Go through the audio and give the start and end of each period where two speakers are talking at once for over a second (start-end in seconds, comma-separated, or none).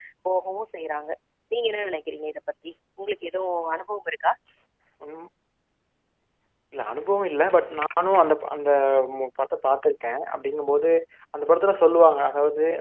none